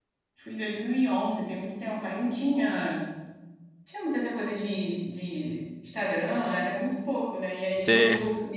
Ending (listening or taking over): listening